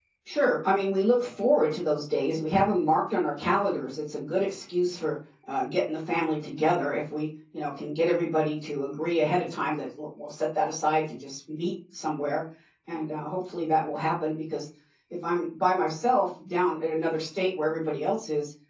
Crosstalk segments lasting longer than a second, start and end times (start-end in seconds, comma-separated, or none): none